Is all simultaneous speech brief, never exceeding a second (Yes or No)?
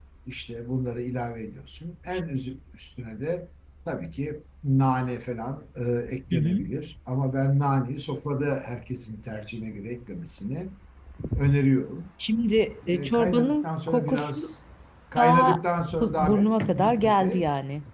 No